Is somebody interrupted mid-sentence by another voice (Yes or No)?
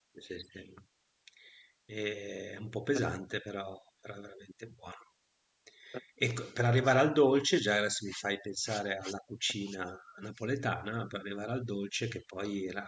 No